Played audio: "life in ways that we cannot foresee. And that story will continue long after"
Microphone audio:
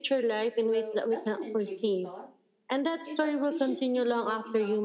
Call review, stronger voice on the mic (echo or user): echo